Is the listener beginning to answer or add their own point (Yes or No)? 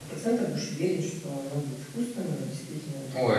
Yes